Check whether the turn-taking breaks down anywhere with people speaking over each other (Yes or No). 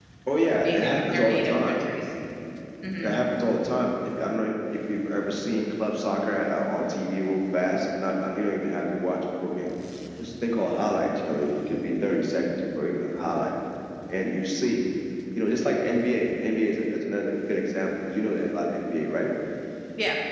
Yes